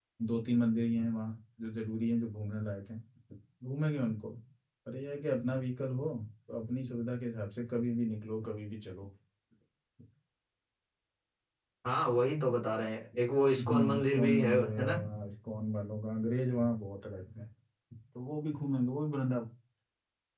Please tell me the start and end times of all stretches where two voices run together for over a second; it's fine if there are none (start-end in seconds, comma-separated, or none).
13.6-15.0